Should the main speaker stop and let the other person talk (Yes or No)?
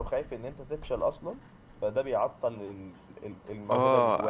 Yes